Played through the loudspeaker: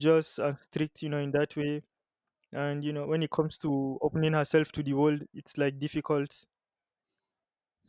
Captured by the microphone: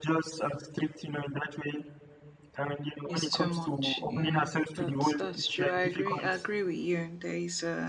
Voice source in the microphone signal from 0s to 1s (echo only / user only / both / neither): echo only